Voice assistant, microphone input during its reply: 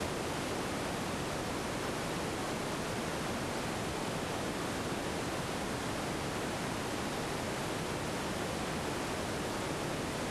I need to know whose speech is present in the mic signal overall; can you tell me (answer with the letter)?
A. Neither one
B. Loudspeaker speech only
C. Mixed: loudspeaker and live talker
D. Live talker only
A